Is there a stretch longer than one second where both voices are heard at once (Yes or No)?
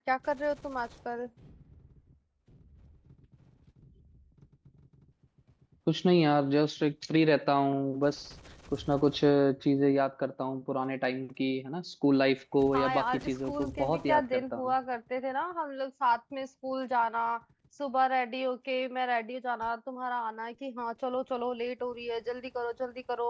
Yes